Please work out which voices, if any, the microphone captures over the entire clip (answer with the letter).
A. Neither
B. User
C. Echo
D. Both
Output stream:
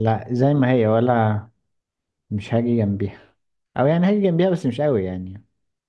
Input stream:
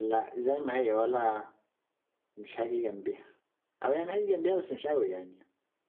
C